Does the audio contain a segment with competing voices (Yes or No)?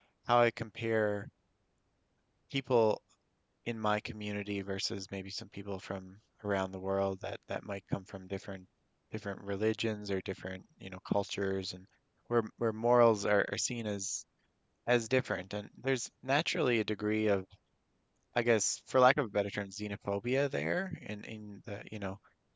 No